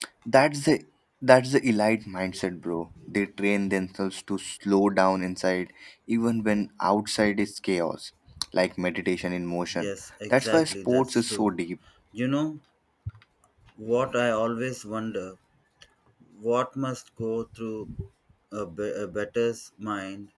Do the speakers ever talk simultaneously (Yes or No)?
Yes